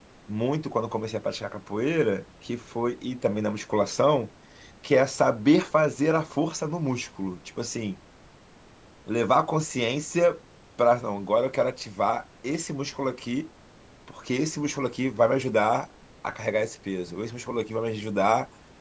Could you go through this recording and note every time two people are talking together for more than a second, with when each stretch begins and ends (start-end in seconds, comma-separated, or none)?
none